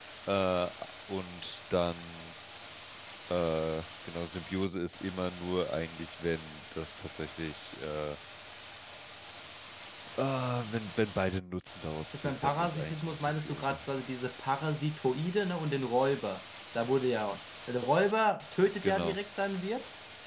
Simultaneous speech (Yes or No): Yes